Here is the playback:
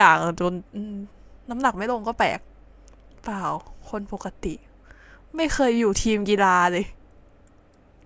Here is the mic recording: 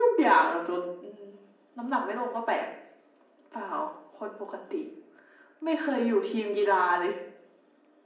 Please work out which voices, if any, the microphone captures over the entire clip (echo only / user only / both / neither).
echo only